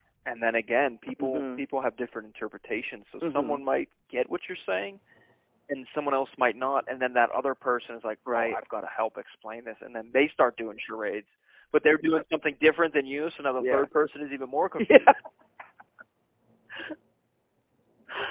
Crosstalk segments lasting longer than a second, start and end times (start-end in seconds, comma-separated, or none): none